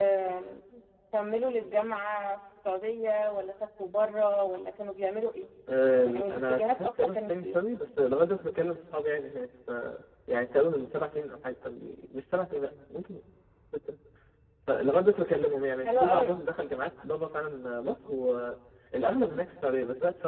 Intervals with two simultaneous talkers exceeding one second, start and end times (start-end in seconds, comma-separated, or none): 6.0-7.6